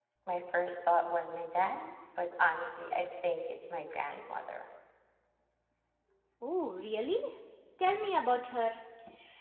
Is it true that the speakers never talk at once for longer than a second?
Yes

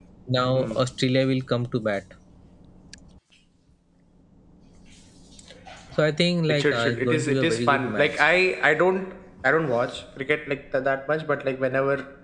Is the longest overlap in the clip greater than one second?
Yes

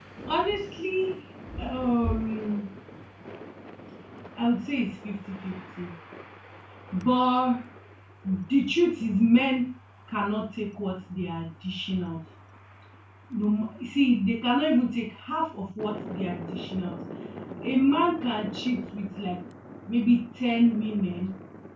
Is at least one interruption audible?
No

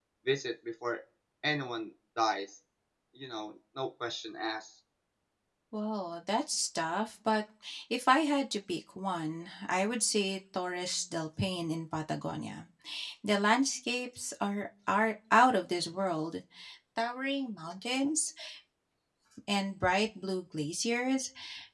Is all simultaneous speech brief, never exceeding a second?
Yes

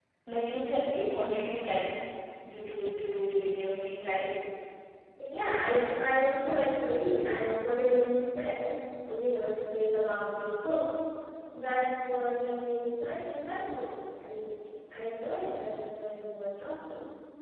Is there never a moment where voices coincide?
Yes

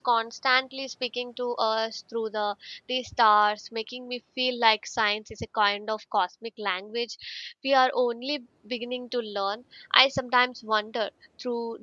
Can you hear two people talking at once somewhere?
No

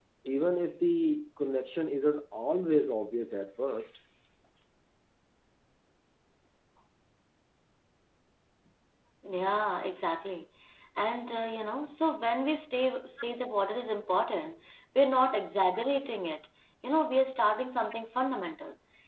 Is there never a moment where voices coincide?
Yes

